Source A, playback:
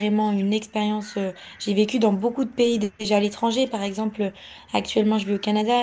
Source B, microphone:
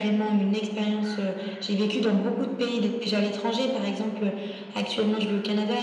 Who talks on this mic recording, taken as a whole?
echo only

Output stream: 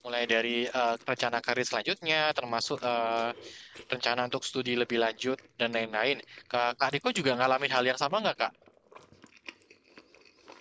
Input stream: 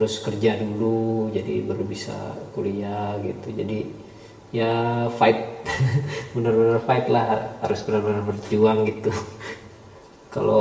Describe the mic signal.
user only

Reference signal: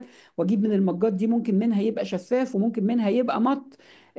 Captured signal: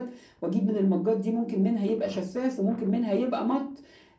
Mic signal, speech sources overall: echo only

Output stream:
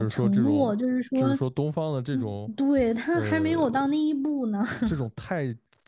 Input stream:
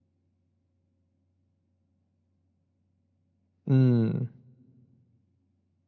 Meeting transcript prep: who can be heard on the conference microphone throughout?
user only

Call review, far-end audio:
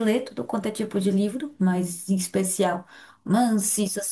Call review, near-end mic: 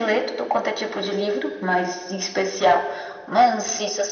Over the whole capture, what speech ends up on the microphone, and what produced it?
echo only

